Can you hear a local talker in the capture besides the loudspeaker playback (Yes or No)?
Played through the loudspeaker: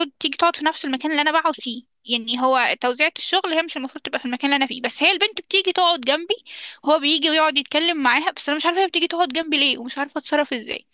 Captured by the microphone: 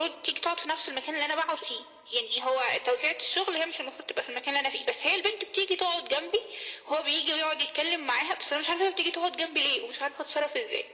No